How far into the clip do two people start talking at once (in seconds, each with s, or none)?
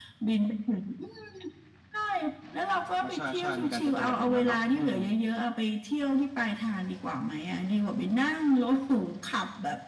3.0 s